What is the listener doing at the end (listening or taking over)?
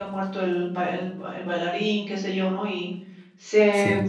listening